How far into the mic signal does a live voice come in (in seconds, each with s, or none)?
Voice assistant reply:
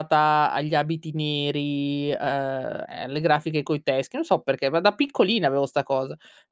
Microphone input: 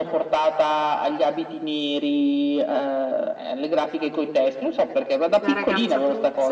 5.4 s